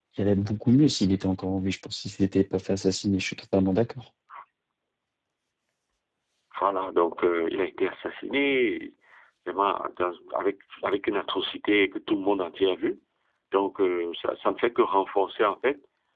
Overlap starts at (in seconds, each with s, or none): none